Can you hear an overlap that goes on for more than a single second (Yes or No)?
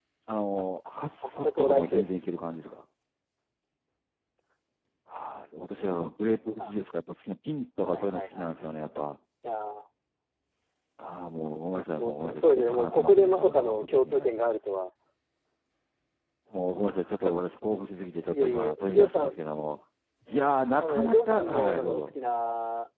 Yes